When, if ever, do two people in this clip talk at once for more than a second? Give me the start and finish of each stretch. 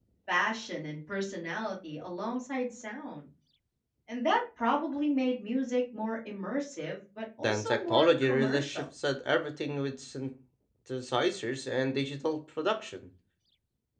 7.4-8.9

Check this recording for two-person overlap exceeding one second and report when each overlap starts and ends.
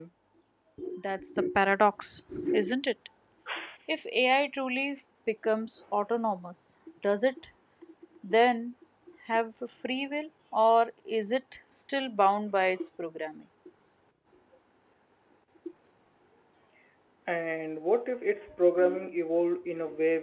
none

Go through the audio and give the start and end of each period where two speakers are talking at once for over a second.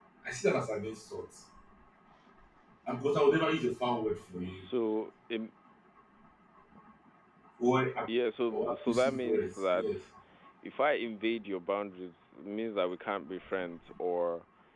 8.5-10.0

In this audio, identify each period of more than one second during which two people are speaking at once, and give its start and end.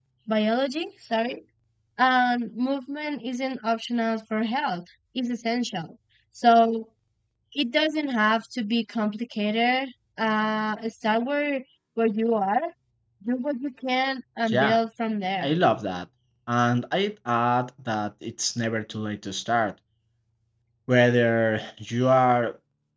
none

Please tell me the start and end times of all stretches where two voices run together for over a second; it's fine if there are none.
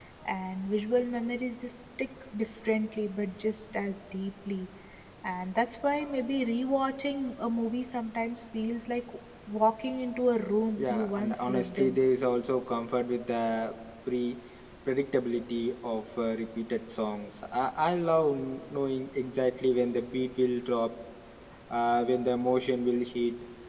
10.8-12.0

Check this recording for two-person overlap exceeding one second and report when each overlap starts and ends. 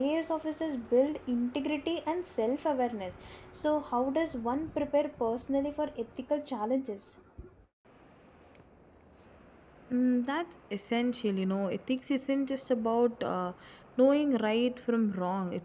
none

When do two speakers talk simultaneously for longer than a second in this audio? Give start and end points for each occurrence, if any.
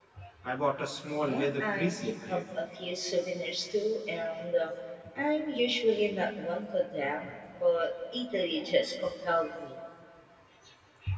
1.1-2.4

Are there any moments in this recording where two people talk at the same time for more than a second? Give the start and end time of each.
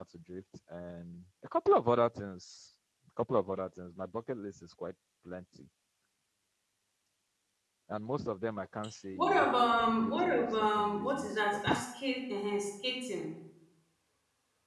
10.0-11.6

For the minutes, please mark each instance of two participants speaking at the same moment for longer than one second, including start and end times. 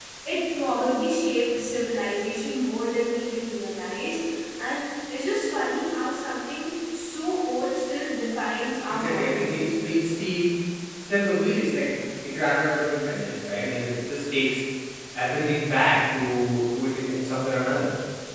8.9-10.1

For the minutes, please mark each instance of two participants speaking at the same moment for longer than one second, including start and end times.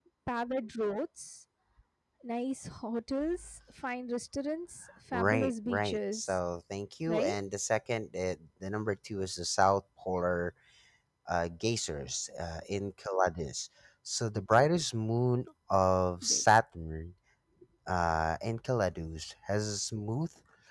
5.1-6.4

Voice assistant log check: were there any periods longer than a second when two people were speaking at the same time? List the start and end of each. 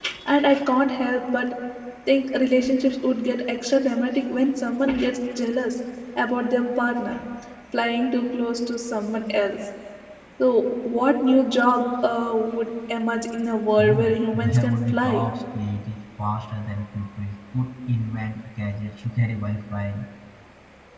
13.8-15.2

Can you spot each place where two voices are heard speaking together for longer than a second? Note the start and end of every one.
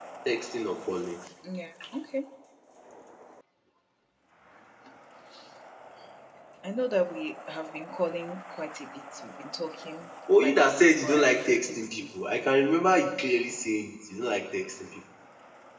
10.4-12.1

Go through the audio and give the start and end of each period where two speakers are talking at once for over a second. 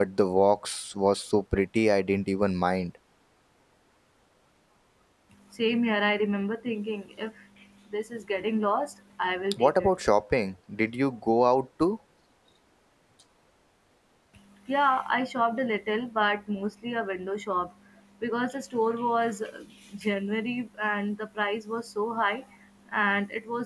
none

